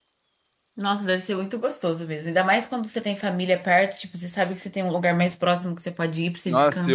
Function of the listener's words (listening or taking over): taking over